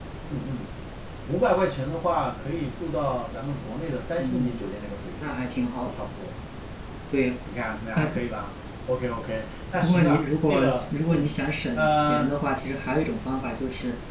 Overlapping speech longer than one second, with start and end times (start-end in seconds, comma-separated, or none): 9.8-11.3